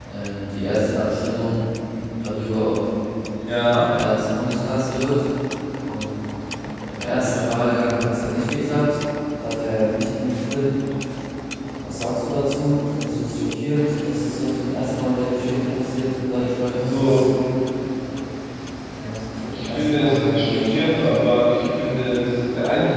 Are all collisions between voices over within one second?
No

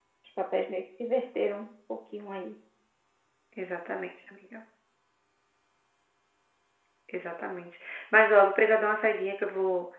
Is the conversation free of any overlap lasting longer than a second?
Yes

